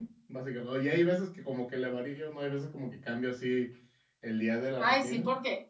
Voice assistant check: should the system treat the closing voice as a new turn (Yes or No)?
Yes